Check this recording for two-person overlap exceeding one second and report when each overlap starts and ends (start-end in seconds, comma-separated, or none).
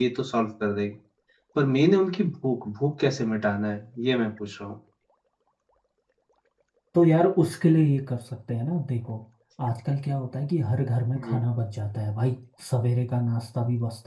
none